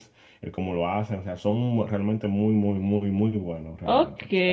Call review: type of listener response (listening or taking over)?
taking over